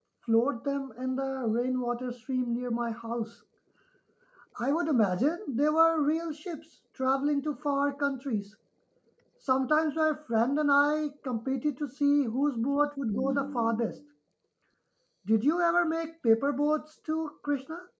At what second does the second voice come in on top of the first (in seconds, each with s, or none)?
none